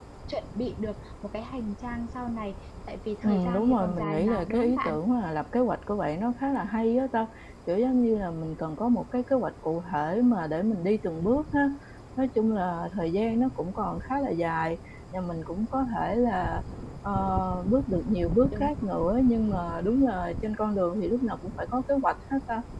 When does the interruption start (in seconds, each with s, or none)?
3.2 s